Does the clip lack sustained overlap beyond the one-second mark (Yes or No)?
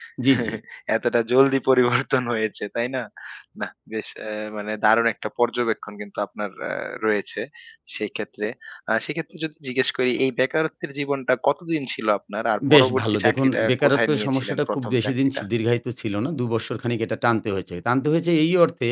No